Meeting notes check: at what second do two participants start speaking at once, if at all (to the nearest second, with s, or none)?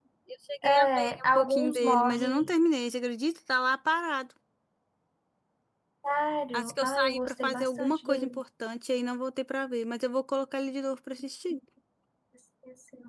1 s